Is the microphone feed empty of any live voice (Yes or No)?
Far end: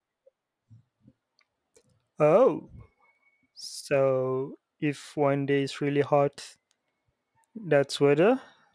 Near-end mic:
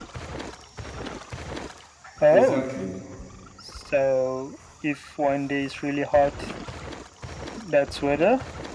No